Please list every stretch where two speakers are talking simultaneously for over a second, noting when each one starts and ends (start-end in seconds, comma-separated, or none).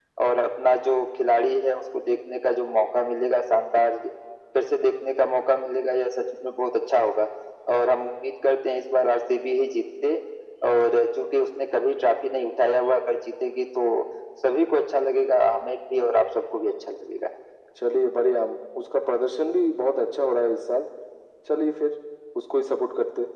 none